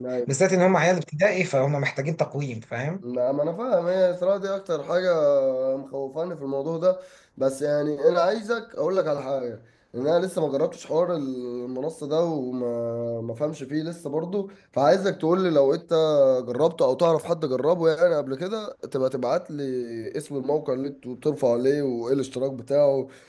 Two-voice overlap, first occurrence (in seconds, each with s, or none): none